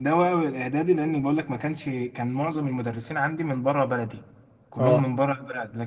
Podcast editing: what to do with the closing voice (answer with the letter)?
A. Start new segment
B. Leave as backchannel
B